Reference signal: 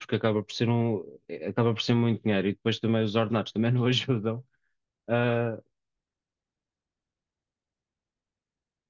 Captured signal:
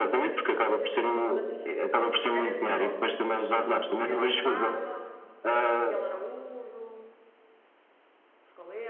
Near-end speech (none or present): present